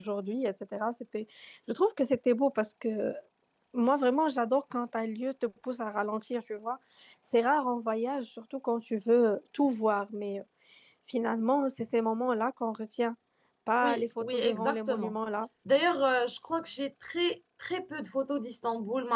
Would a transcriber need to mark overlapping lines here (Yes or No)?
Yes